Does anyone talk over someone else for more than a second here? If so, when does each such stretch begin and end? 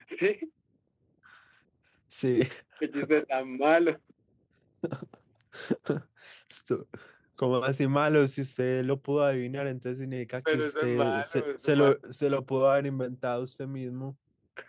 10.5-11.9

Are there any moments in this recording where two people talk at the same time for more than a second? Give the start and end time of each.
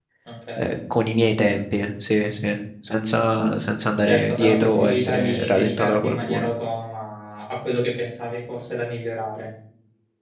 4.1-6.5

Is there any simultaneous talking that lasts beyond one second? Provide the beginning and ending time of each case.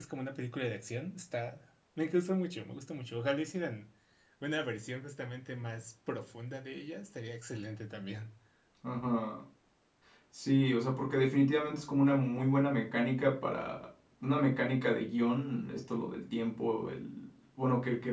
none

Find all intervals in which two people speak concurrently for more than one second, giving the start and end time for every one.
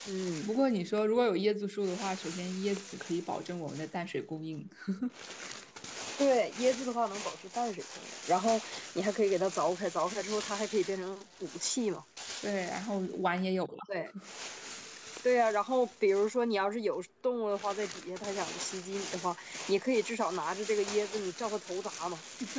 none

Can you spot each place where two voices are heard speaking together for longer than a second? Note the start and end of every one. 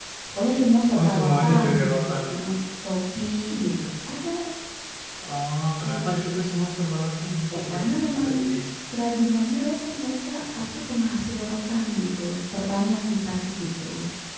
1.0-2.4

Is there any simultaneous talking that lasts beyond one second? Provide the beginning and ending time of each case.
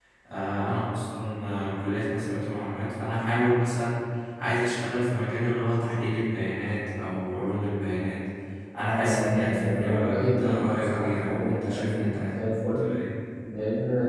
8.9-12.3

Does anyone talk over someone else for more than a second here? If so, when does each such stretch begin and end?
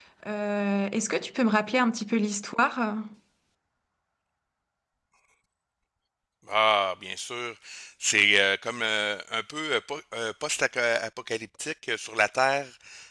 none

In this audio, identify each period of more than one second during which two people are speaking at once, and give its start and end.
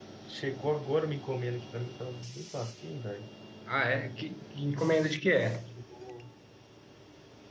none

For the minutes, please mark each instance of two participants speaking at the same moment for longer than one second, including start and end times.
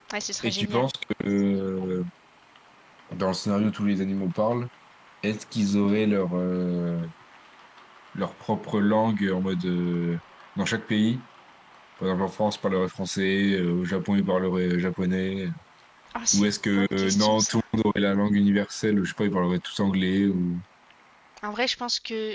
16.3-17.6

